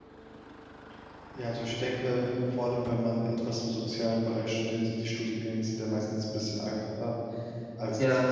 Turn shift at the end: No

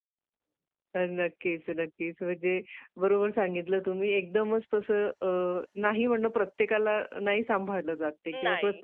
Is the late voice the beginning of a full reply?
No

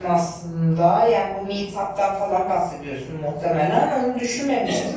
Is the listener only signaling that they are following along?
Yes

